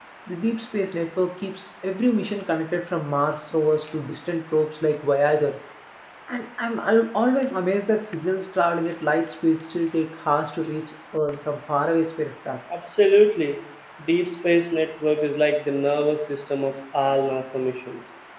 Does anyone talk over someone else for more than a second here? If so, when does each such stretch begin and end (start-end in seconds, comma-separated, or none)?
none